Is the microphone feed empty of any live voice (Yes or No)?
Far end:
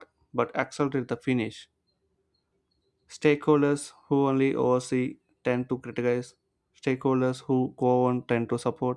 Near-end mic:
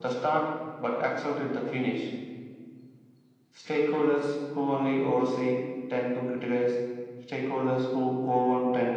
Yes